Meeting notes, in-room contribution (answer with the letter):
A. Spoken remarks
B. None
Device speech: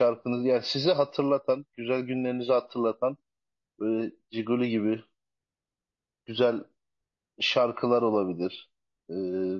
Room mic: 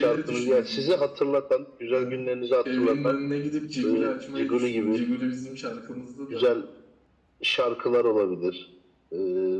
A